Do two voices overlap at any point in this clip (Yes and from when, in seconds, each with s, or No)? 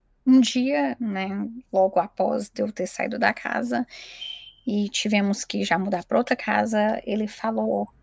No